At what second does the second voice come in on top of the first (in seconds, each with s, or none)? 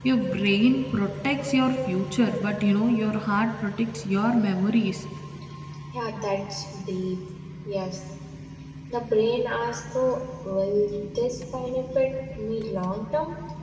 none